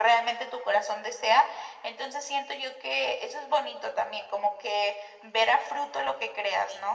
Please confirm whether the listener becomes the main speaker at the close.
Yes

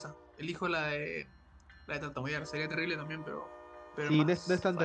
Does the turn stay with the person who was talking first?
No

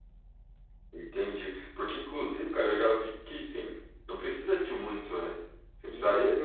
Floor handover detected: No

